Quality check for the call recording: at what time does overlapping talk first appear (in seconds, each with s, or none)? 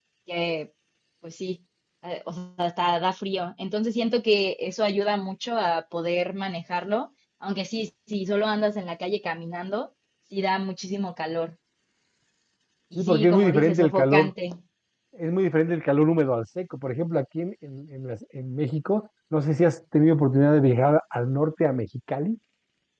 12.9 s